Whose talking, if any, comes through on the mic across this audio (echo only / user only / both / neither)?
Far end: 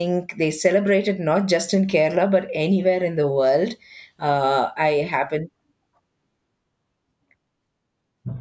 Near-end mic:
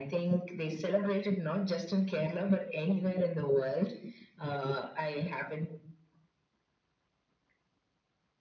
echo only